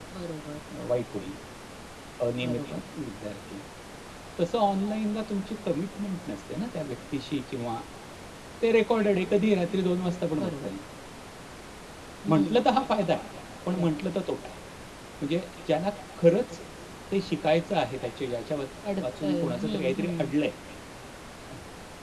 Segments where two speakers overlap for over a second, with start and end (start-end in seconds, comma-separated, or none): 19.0-20.3